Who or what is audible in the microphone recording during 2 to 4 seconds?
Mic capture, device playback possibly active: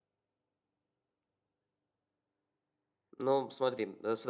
user only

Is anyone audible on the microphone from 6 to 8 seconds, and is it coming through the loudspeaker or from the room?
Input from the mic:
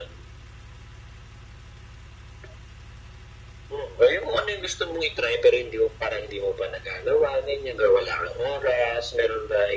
echo only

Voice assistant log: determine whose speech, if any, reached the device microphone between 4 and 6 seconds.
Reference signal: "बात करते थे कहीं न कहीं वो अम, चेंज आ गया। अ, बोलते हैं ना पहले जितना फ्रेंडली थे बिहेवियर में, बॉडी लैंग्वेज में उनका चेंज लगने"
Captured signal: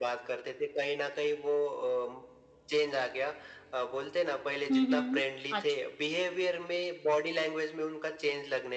both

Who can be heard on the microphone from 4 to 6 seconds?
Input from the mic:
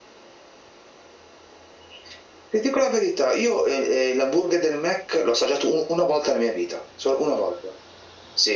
echo only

